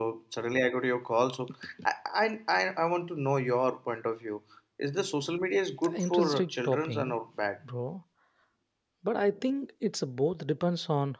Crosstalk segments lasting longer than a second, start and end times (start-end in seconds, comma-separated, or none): 5.9-7.1